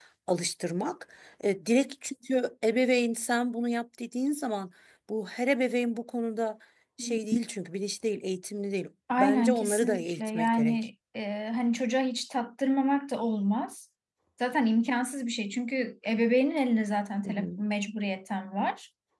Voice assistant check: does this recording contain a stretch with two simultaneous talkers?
Yes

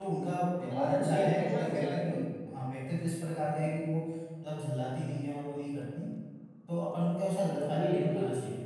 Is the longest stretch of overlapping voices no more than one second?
No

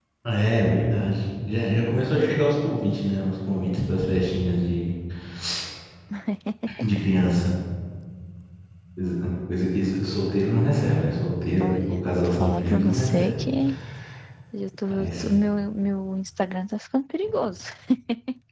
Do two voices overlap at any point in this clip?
Yes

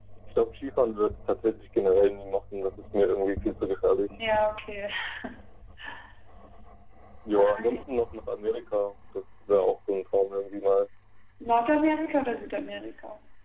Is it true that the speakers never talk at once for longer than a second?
Yes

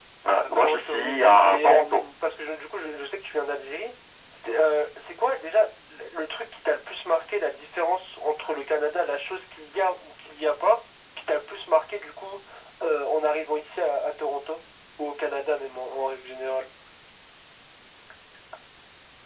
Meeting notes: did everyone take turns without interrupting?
No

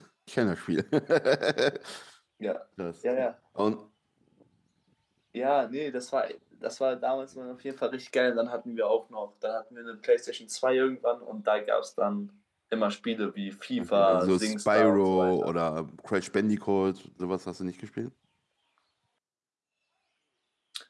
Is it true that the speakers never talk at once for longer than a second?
No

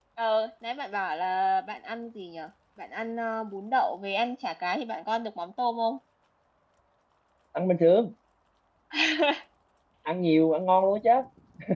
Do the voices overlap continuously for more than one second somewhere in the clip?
No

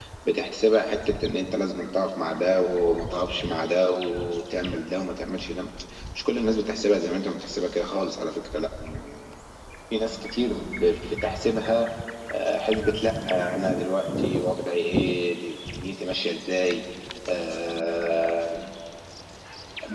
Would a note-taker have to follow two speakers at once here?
No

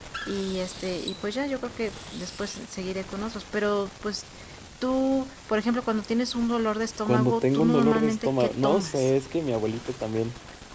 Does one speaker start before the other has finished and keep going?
Yes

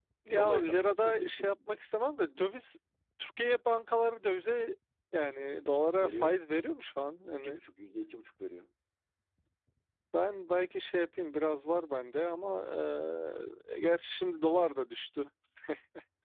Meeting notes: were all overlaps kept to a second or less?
No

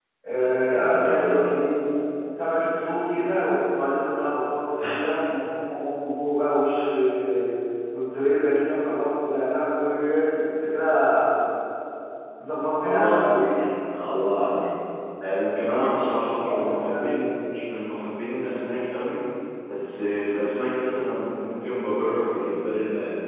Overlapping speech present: Yes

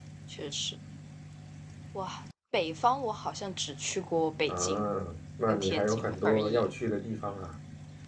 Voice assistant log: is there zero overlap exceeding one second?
No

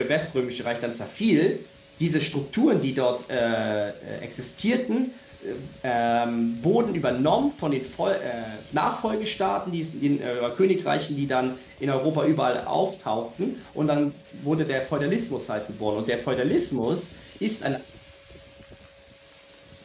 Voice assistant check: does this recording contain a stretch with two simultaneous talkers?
No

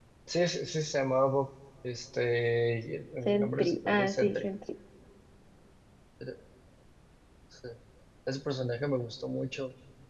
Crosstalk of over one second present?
Yes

